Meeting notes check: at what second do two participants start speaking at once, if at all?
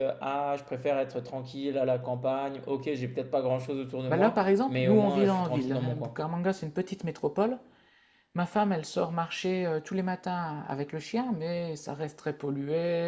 4.1 s

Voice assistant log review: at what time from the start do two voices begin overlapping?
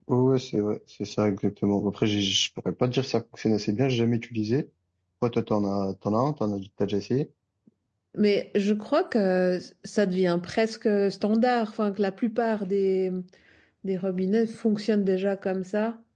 none

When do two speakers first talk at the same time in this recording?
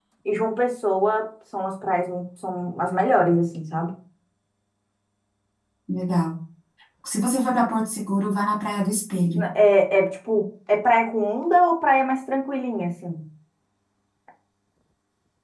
none

